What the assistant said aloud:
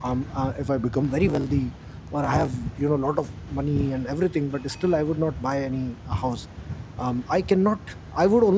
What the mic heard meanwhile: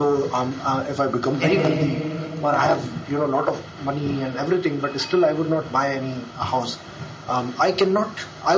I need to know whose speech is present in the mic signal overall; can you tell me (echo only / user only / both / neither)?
both